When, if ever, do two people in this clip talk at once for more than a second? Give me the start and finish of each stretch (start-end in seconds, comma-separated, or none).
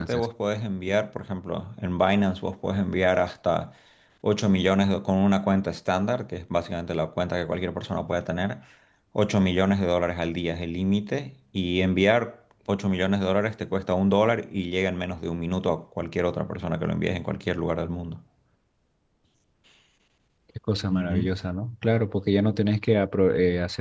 none